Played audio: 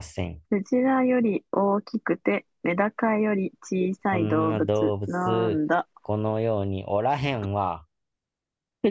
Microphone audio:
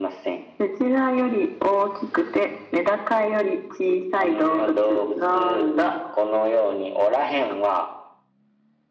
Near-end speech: none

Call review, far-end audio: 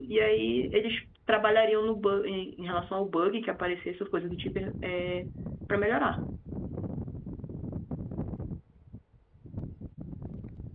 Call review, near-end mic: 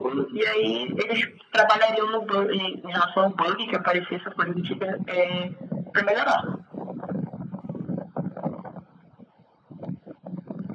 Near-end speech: none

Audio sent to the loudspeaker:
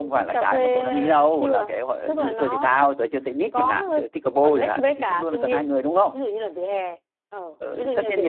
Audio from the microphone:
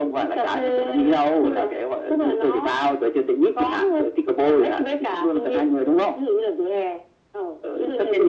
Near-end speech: none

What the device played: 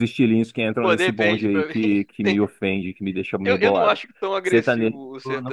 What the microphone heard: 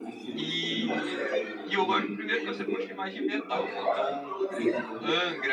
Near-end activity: present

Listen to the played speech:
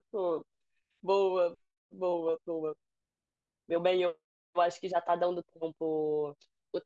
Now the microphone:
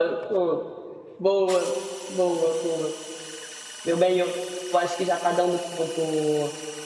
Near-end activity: none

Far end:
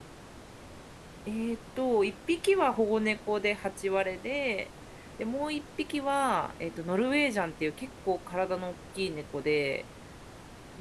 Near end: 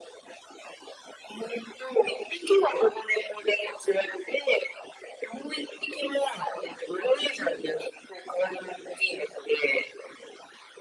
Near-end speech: none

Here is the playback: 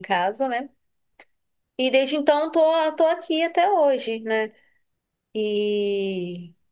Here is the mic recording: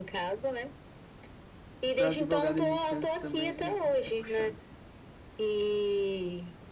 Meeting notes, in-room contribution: present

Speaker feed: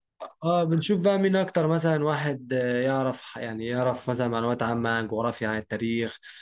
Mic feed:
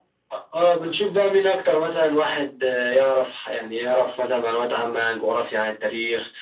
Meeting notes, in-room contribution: none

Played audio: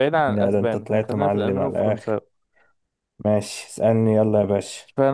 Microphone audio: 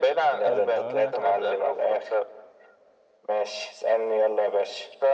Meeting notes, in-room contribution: present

